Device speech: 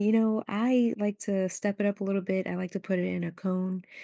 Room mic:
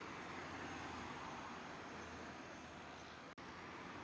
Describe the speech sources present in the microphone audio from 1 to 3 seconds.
neither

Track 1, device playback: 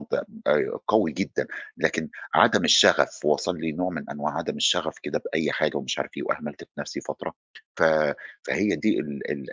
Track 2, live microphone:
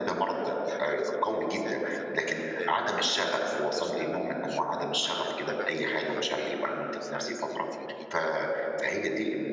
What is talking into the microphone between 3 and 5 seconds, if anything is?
both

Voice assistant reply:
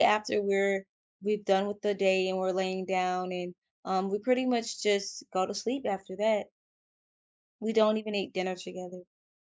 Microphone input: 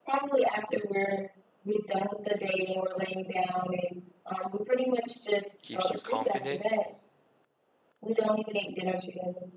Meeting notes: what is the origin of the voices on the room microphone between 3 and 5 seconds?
echo only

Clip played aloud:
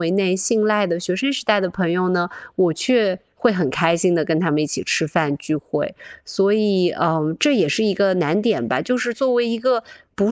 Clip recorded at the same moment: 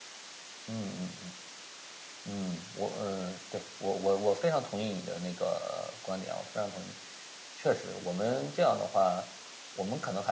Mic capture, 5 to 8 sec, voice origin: user only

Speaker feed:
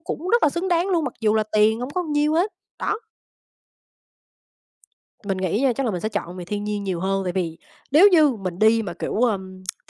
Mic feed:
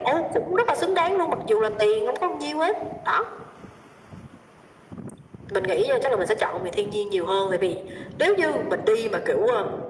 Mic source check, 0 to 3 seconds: echo only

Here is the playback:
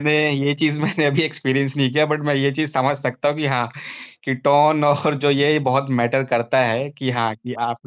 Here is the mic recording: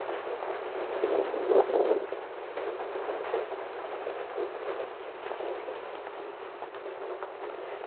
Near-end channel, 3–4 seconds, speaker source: neither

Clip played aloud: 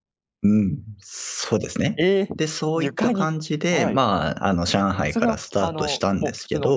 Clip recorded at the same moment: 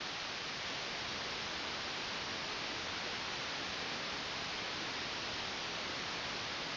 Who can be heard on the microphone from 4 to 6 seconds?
neither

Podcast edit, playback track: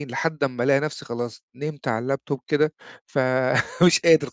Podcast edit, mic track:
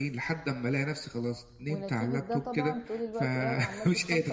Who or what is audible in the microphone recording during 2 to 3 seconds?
both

